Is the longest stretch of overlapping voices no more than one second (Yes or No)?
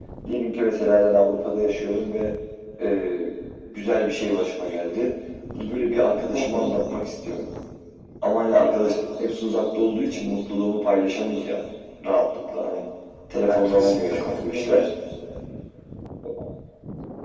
No